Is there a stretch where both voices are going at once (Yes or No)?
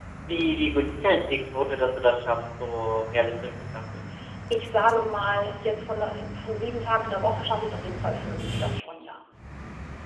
No